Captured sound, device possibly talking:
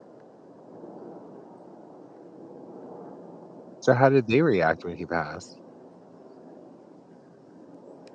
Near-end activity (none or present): present